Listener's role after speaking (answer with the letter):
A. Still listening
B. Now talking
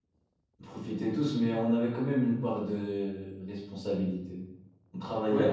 B